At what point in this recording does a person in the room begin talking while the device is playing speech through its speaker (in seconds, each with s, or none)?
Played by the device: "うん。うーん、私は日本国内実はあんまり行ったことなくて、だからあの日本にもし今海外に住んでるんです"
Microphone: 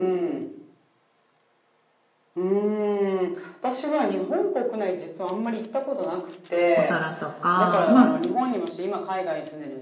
6.7 s